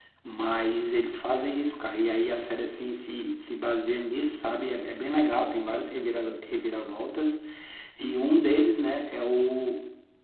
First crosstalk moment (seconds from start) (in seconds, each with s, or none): none